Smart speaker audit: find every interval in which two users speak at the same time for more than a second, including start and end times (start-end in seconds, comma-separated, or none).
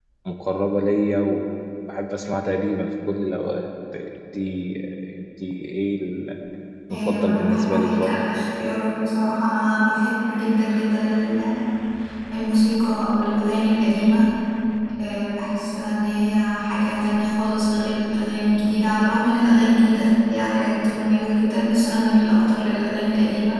6.9-8.1